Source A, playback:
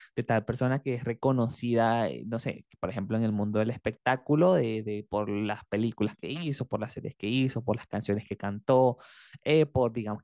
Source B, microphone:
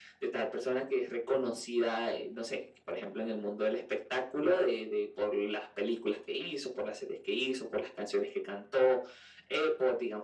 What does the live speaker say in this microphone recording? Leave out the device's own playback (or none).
none